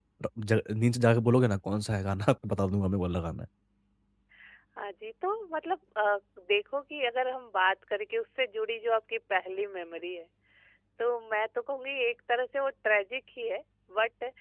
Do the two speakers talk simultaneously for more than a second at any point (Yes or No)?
No